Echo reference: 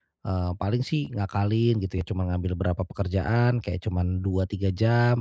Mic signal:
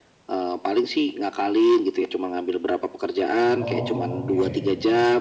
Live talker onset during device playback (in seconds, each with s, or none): 3.5 s